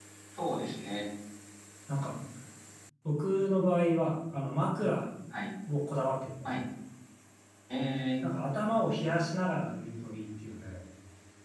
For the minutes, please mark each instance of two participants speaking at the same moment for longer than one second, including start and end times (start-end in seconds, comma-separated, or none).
none